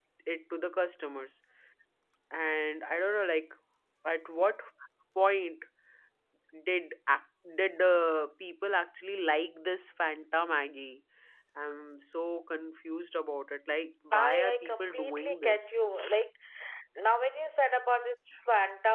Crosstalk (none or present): present